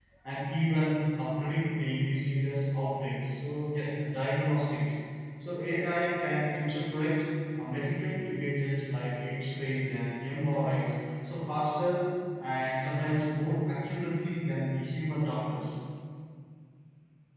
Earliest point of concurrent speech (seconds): none

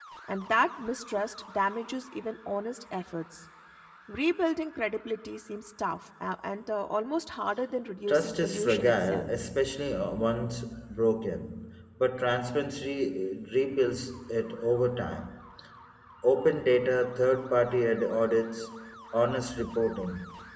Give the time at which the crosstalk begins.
8.1 s

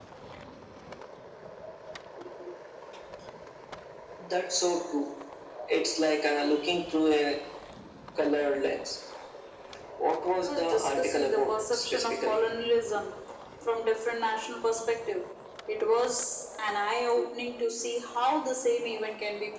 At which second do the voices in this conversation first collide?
10.3 s

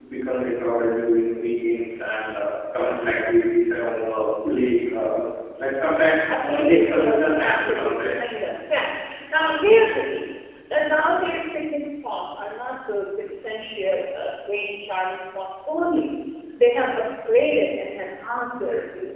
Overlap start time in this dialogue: 6.3 s

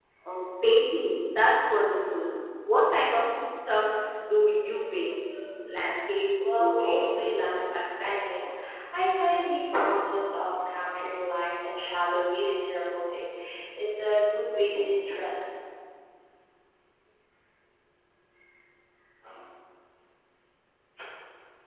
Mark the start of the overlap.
6.4 s

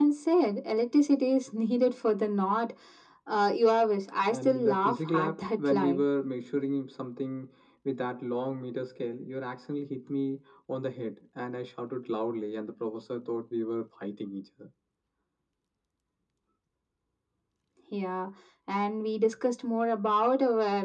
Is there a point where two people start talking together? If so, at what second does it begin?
4.3 s

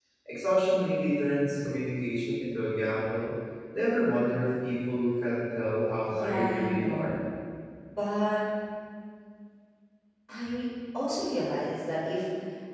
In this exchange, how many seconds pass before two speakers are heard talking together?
6.0 s

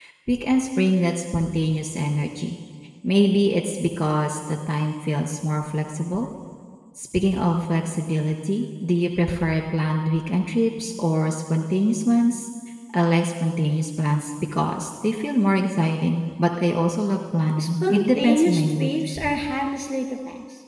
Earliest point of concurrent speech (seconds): 17.6 s

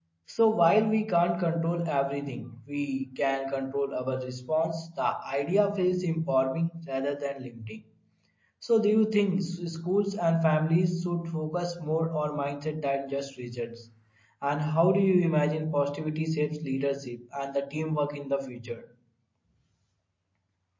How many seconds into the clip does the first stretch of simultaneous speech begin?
none

